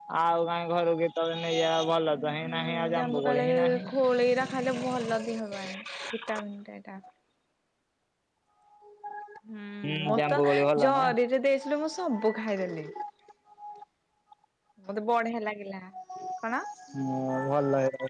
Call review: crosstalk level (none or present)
present